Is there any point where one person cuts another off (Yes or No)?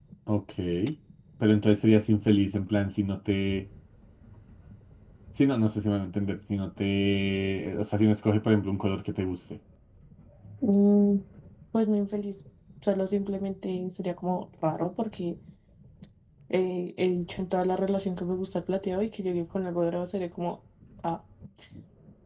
No